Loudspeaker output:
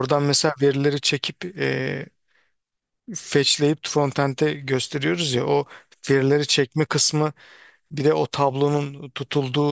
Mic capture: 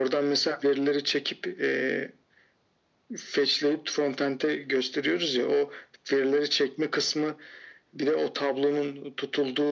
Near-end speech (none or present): none